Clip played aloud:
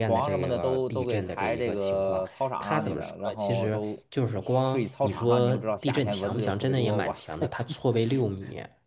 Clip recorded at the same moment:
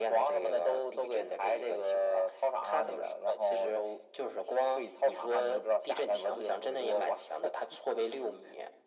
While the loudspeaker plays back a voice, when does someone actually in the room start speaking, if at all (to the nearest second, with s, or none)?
none